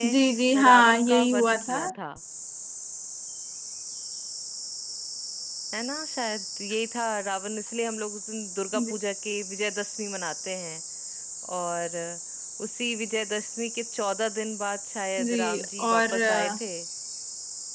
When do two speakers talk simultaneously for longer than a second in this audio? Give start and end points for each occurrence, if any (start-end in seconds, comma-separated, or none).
0.6-1.8, 15.2-16.6